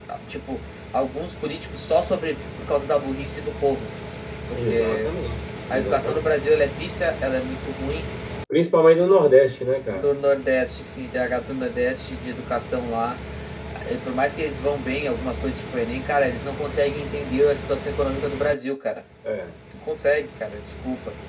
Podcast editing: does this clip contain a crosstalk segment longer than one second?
No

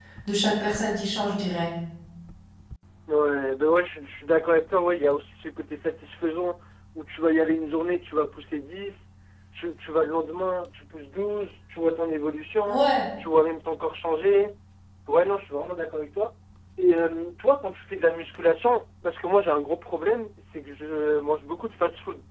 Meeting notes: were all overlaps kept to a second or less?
Yes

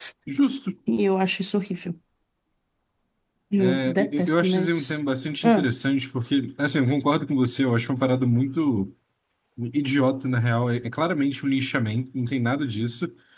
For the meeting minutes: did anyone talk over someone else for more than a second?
Yes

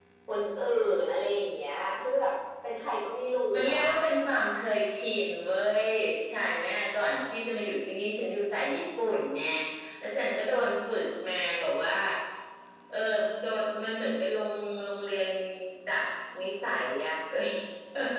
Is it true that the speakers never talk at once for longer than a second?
Yes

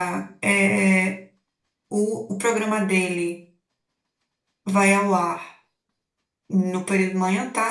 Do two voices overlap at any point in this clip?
No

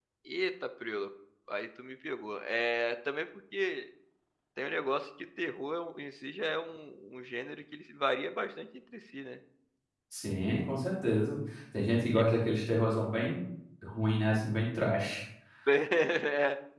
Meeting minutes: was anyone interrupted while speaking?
No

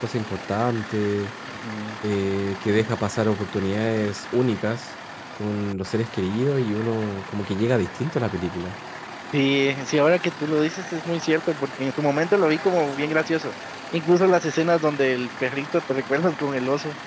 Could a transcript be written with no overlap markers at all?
Yes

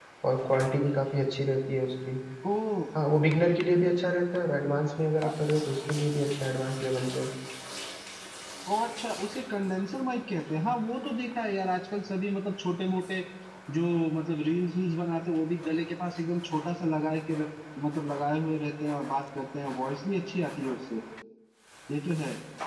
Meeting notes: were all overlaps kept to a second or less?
Yes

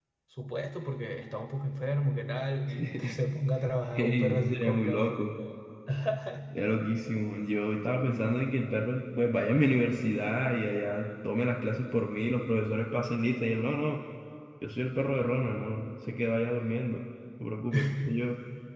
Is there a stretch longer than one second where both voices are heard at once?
Yes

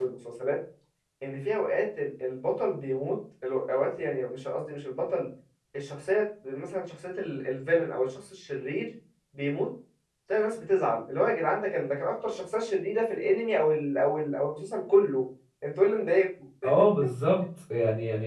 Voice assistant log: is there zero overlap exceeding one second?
Yes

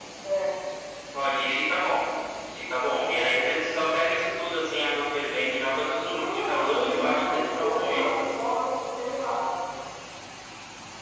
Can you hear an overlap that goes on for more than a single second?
Yes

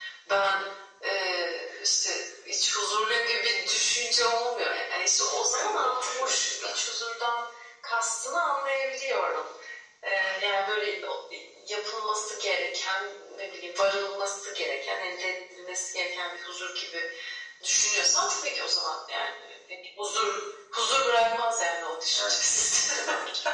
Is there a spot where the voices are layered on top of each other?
Yes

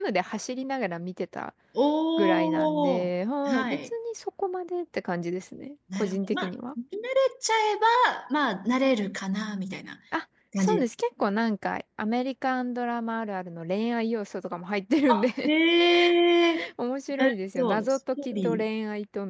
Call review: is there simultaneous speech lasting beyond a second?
Yes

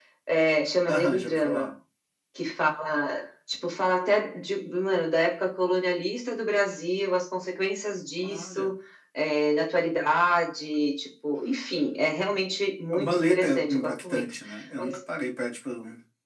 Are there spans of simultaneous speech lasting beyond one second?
Yes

